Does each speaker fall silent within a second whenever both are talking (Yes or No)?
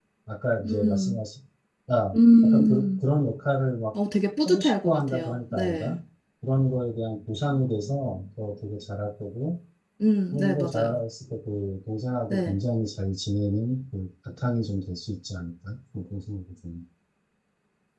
No